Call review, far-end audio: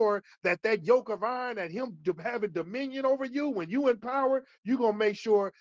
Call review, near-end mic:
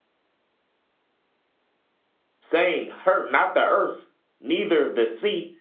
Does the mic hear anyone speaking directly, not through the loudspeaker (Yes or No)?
Yes